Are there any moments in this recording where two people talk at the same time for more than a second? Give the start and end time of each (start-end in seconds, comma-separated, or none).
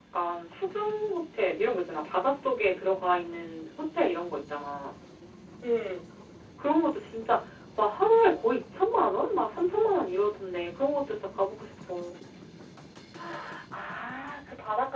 none